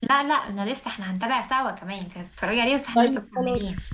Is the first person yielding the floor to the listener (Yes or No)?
Yes